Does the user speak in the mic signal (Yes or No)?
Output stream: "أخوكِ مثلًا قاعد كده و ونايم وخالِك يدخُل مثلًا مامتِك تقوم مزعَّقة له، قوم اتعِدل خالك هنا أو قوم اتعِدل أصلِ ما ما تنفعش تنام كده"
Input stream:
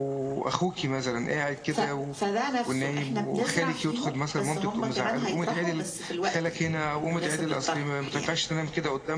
Yes